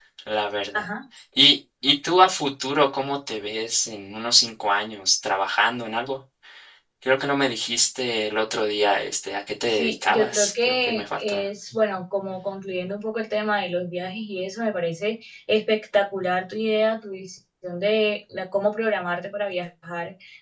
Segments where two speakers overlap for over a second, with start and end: 9.7-11.4

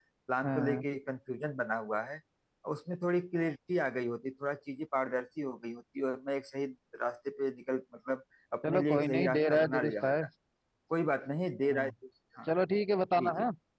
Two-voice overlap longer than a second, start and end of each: 8.6-10.1

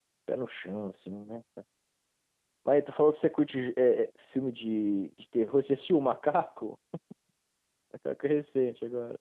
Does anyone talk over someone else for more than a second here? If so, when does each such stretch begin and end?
none

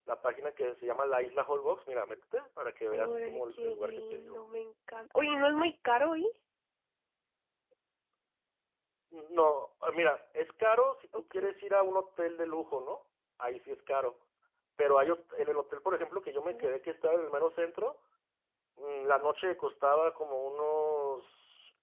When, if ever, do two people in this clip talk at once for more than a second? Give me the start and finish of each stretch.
2.9-4.4

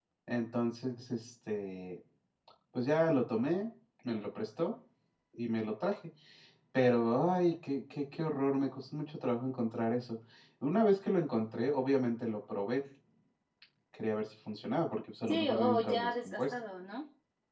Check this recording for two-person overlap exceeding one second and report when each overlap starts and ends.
15.3-16.5

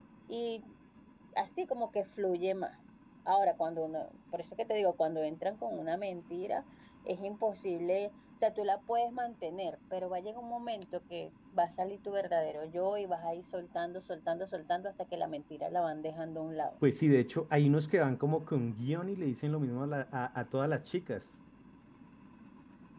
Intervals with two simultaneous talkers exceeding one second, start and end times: none

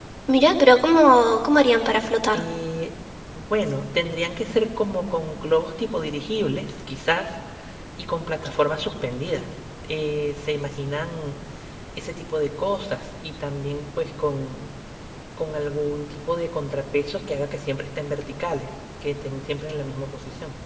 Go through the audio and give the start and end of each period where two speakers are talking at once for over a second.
none

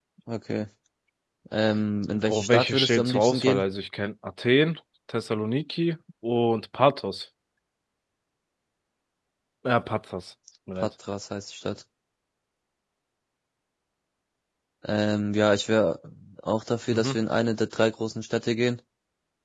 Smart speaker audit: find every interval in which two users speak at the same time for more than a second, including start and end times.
2.1-3.6

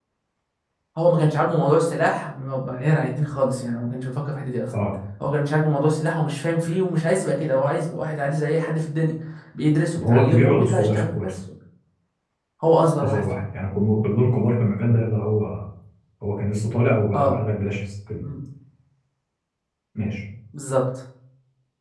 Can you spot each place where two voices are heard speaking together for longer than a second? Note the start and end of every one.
10.0-11.3

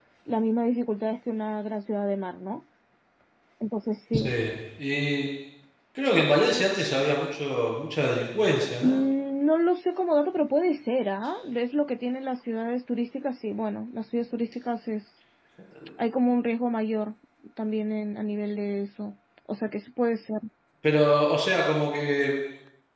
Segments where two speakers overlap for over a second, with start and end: none

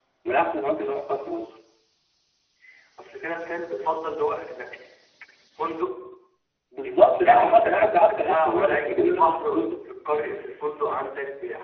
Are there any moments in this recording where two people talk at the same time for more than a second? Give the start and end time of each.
6.8-9.8

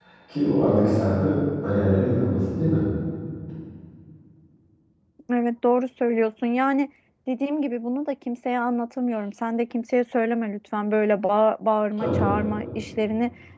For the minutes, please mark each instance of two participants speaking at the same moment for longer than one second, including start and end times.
none

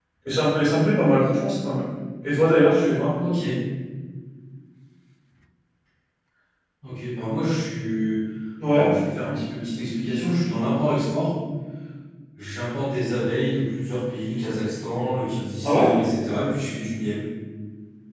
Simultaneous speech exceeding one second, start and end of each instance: none

